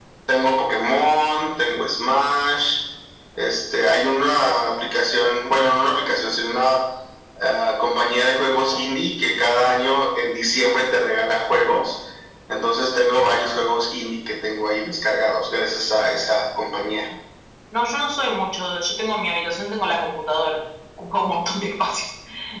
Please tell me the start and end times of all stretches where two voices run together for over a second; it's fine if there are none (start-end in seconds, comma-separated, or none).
none